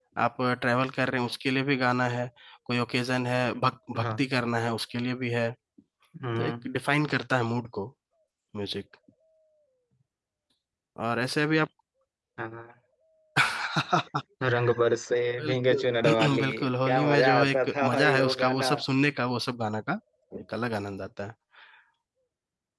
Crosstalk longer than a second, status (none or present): present